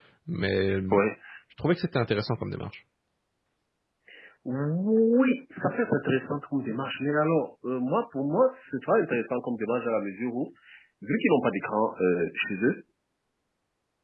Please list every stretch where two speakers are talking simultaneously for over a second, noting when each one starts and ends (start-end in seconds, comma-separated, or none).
none